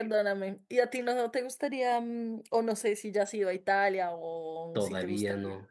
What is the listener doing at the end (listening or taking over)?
taking over